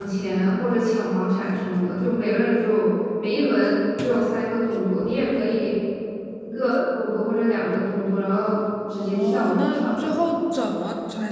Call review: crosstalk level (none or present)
present